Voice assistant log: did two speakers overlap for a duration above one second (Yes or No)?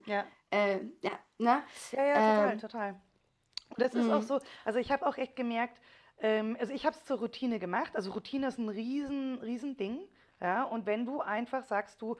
No